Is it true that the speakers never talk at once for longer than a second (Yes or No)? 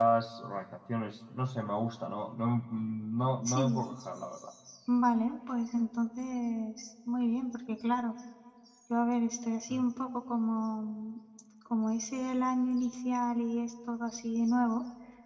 Yes